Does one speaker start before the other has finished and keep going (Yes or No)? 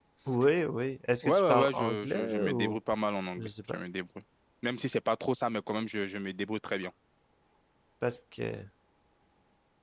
Yes